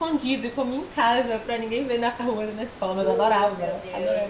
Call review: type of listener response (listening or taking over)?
taking over